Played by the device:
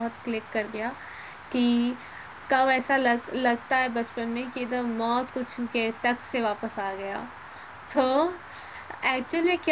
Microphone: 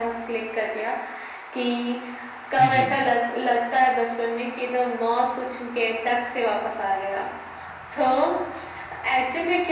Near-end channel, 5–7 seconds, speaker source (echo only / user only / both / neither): echo only